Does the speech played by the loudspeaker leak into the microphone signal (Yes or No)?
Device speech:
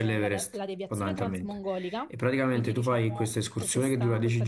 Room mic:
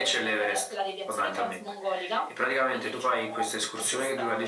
Yes